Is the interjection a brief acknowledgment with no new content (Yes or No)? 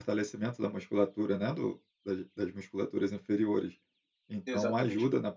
Yes